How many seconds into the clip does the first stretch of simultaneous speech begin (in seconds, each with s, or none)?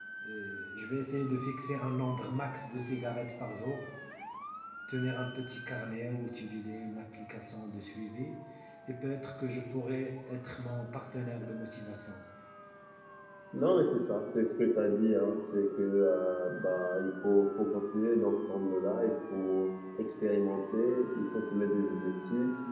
none